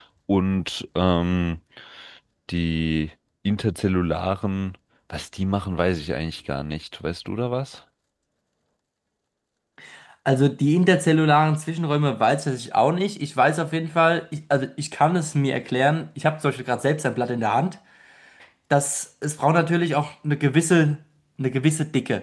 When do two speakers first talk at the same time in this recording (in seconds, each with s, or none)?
none